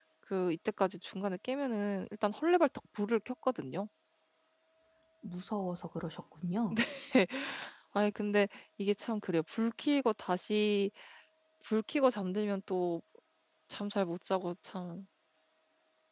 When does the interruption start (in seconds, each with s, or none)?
none